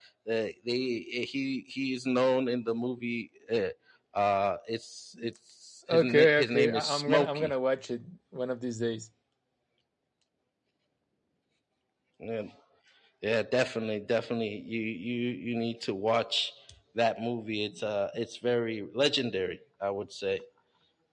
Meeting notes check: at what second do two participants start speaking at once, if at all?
5.9 s

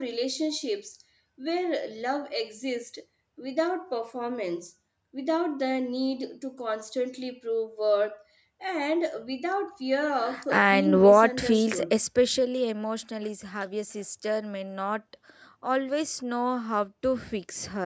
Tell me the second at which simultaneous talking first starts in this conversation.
10.5 s

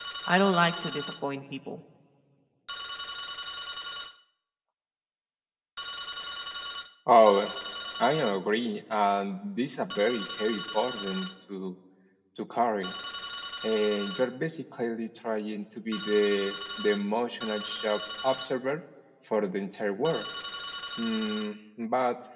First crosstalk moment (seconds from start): none

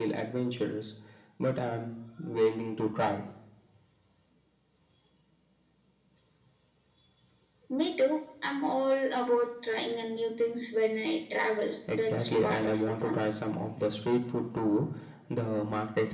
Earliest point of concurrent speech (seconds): 11.9 s

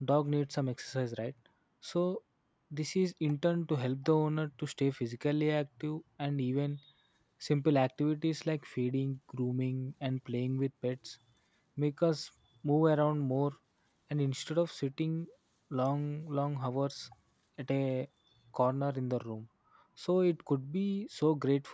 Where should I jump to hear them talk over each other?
none

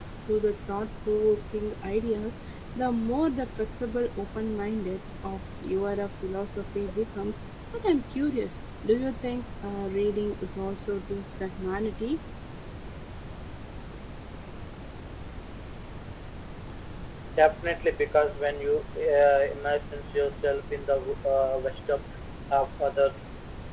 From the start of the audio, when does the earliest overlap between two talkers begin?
none

